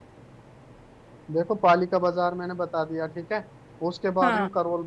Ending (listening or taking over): listening